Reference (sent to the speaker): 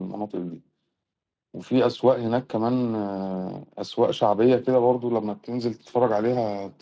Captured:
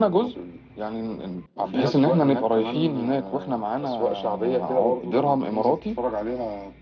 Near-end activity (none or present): present